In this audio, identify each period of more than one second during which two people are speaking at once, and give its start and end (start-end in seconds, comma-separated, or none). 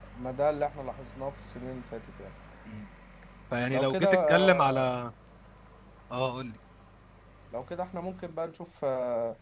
3.7-5.0